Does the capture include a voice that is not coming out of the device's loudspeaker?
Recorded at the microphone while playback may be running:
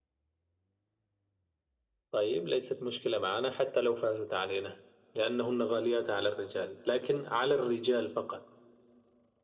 No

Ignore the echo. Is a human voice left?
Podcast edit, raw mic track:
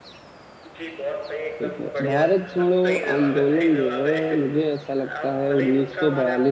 Yes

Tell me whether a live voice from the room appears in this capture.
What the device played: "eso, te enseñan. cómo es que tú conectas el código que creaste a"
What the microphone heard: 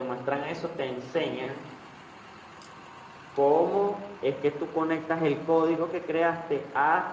No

